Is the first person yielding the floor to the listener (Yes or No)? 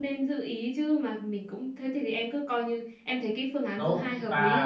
Yes